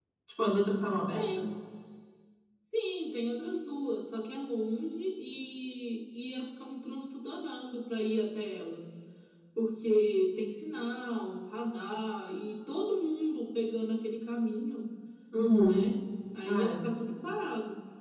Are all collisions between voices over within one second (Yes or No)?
Yes